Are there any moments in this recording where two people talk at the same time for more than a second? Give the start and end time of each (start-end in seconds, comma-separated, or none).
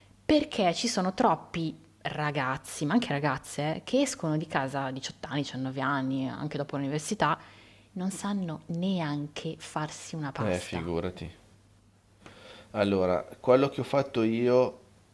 none